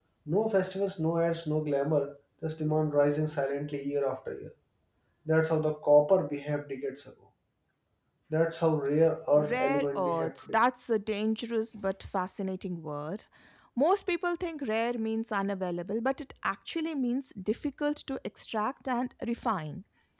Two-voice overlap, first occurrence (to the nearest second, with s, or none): 9 s